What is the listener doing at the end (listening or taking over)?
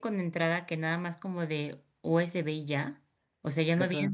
listening